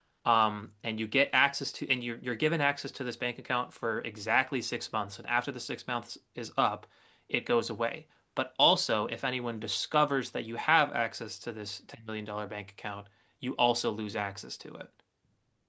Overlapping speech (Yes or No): No